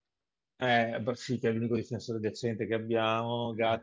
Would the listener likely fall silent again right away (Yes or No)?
Yes